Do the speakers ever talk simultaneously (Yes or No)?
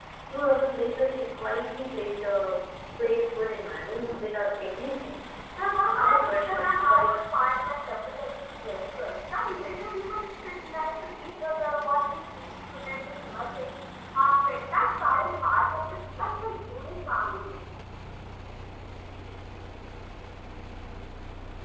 Yes